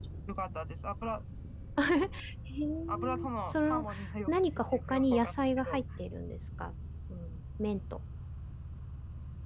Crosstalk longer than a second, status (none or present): present